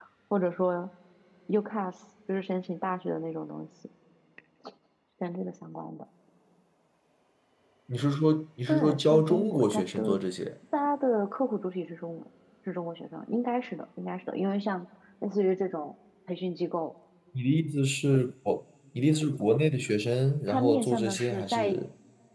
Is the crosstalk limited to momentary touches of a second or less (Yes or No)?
No